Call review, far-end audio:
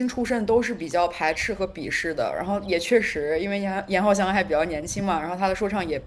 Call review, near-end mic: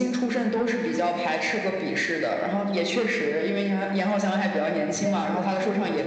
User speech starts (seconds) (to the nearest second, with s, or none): 5 s